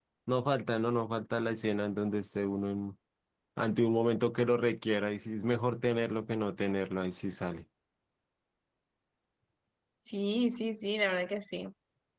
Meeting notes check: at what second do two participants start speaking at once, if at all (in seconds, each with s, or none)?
none